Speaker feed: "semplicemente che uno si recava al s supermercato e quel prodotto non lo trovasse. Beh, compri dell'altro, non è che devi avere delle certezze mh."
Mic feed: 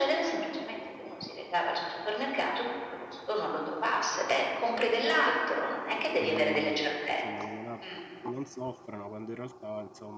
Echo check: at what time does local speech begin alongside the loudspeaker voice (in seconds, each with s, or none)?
6.2 s